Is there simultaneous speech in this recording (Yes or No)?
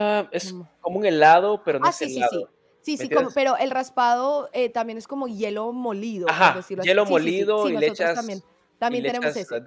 Yes